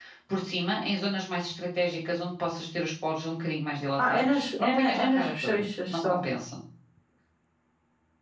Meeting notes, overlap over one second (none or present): present